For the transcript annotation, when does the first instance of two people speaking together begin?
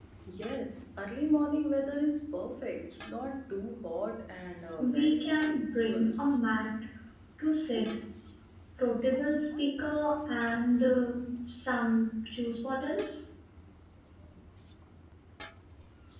4.8 s

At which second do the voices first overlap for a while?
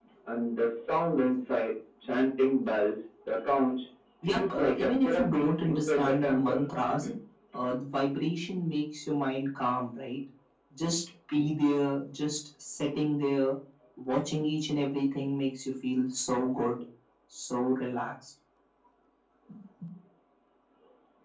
4.2 s

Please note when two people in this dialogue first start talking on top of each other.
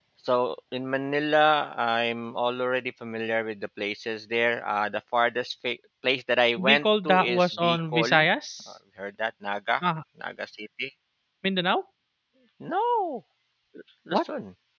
6.6 s

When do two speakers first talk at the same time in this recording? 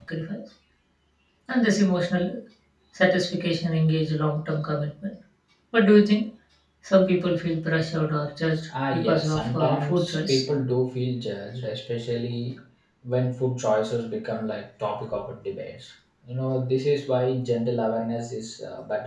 8.7 s

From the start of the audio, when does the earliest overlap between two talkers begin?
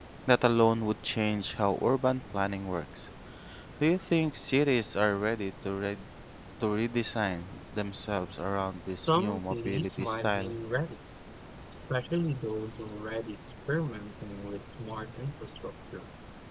8.9 s

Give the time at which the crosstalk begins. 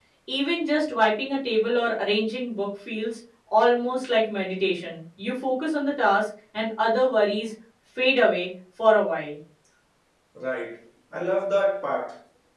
none

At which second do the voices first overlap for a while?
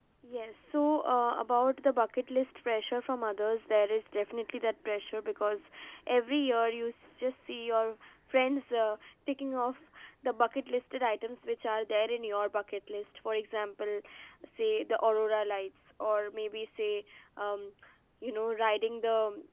none

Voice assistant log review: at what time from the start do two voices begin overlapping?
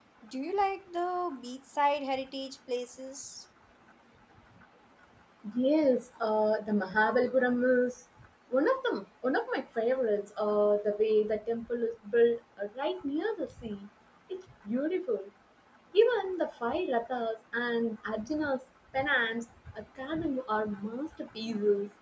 none

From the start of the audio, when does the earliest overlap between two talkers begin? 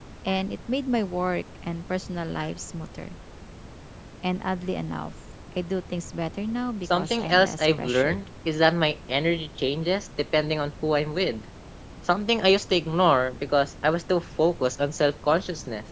6.9 s

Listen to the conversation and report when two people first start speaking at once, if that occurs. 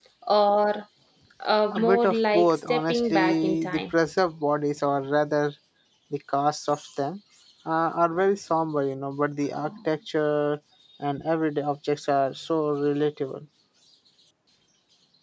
1.7 s

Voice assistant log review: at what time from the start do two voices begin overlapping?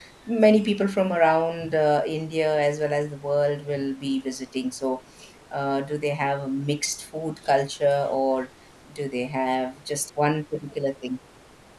none

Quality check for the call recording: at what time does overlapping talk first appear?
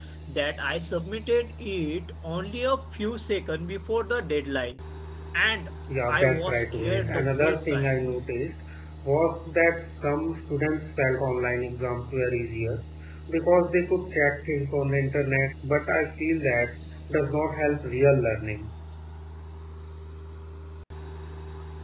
6.1 s

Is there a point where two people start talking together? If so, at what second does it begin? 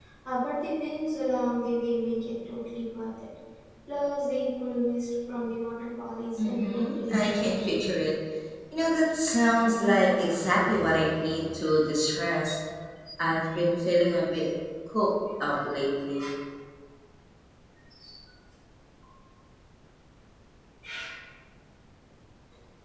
6.4 s

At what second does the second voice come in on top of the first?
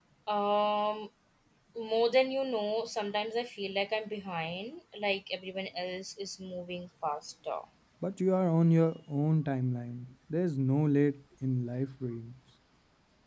none

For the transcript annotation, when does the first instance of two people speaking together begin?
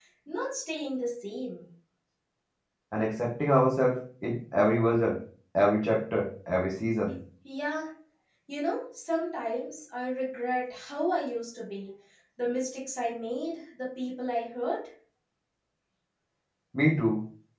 none

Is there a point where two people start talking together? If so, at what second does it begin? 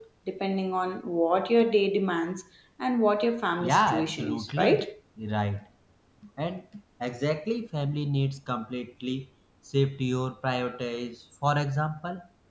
3.6 s

